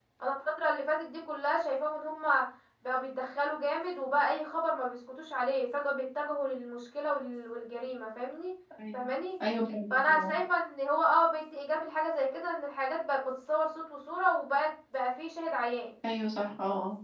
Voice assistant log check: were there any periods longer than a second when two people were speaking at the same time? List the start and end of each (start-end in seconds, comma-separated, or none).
none